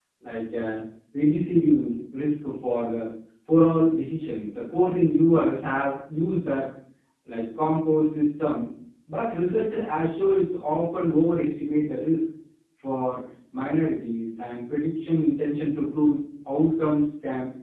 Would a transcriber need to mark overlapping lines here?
No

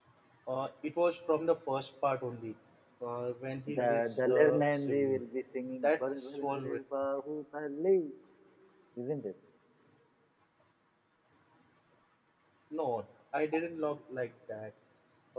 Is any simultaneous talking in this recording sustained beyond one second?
Yes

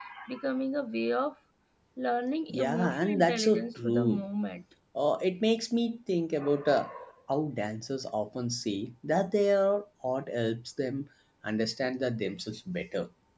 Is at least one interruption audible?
Yes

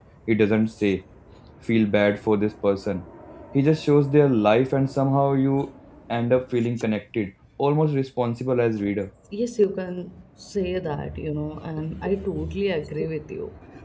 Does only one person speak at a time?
Yes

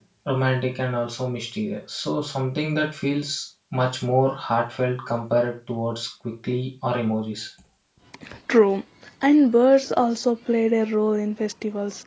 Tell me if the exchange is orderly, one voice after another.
Yes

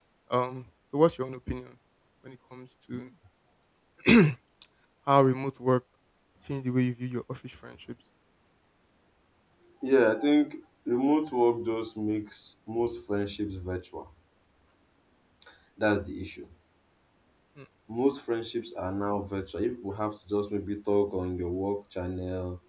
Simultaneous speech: No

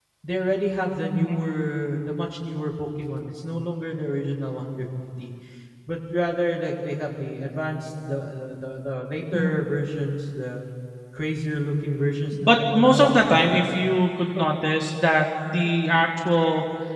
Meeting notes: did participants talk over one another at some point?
Yes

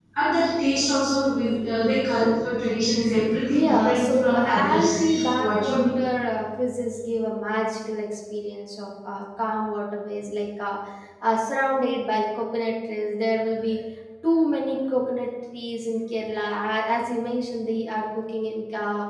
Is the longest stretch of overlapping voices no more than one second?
No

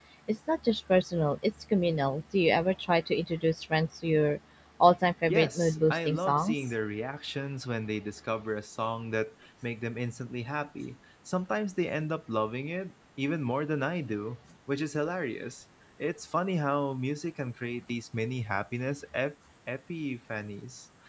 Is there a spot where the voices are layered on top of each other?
Yes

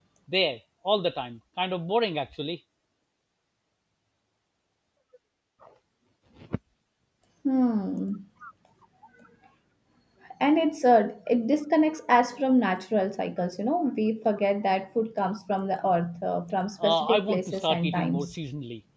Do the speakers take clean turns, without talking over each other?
No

